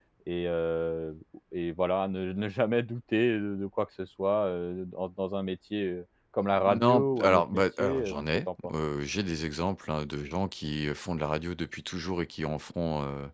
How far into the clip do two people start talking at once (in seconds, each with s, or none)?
6.6 s